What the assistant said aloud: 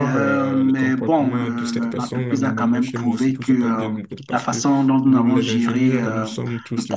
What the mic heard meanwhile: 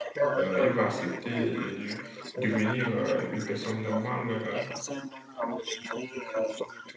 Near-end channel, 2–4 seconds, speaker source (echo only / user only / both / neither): both